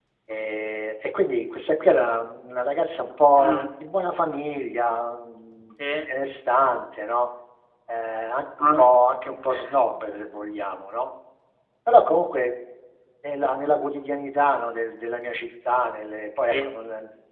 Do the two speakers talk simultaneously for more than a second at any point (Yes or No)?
No